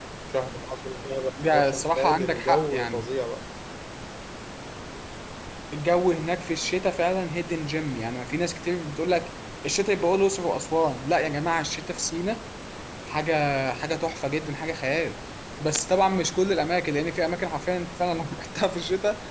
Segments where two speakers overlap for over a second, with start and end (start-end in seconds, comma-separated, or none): 1.5-3.1